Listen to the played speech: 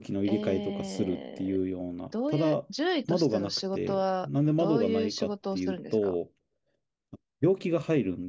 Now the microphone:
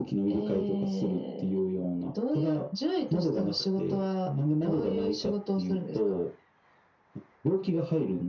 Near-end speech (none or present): none